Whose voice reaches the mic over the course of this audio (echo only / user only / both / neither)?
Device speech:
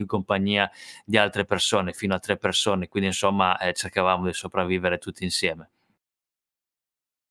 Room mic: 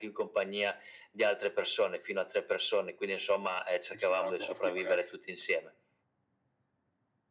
both